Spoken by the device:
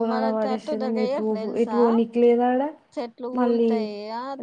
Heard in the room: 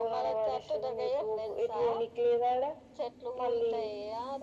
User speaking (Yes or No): No